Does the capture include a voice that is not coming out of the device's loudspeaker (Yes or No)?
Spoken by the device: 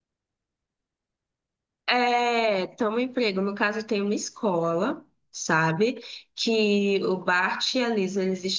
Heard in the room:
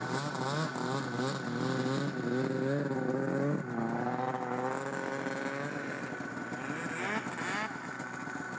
No